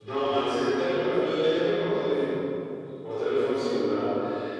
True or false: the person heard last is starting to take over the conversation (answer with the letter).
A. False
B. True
A